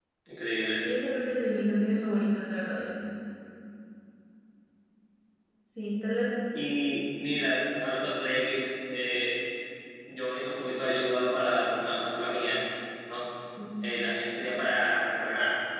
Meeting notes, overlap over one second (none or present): none